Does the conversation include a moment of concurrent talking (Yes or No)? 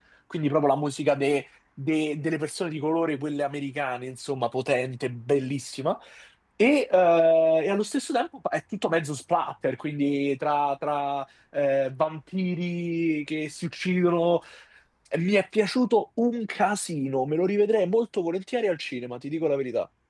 No